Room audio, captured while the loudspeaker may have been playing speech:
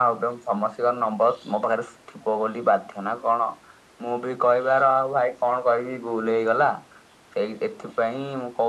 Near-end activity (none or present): none